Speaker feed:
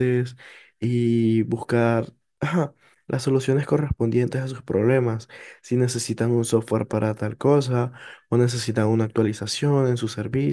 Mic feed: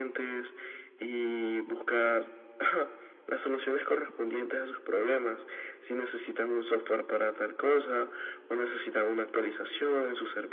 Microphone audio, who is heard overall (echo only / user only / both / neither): echo only